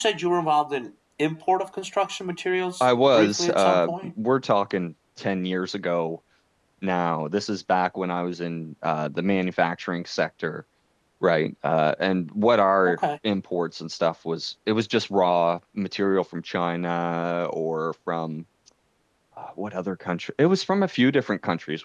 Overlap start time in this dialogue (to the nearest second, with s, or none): 3 s